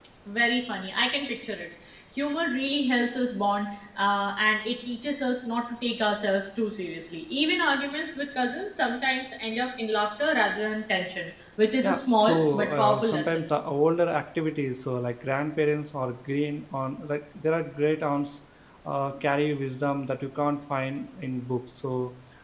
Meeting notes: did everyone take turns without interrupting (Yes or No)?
No